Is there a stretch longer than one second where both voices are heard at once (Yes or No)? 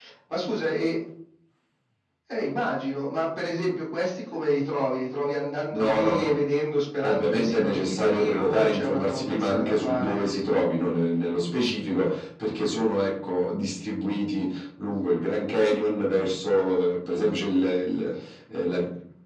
Yes